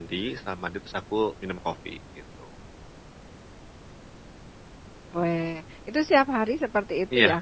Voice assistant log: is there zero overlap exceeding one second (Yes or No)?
Yes